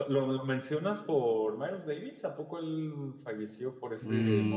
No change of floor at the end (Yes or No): No